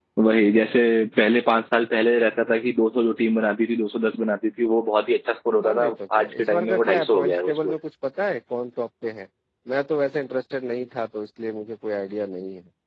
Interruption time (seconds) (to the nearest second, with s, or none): 6 s